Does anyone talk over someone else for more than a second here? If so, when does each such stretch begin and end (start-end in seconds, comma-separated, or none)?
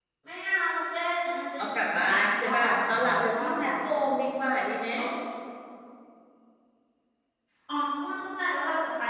1.6-3.7